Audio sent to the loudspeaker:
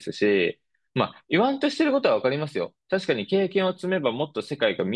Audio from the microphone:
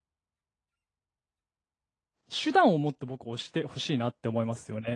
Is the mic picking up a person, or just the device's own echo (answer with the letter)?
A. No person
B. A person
B